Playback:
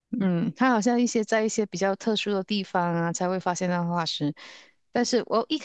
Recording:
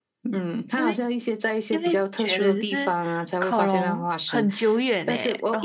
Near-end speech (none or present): present